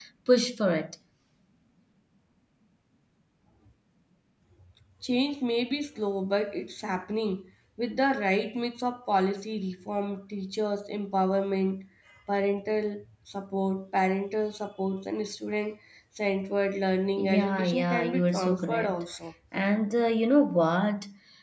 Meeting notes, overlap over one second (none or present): present